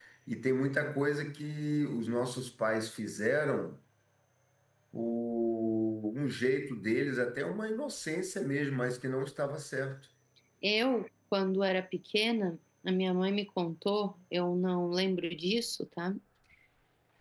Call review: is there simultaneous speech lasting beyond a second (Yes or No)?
No